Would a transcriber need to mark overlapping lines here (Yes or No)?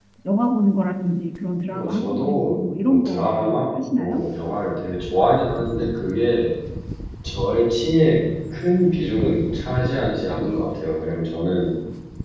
Yes